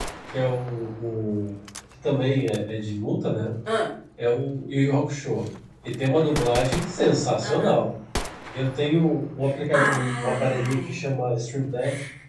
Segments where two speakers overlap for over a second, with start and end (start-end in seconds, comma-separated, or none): 9.7-11.0